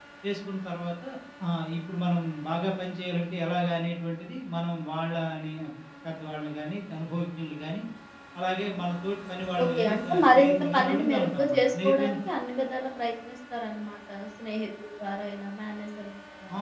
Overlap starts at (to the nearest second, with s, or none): 10 s